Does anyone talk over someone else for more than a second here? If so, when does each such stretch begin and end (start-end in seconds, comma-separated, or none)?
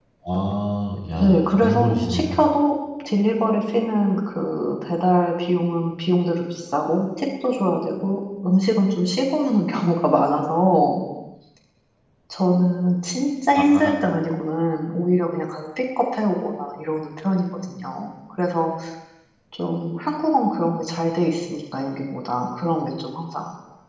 1.1-2.4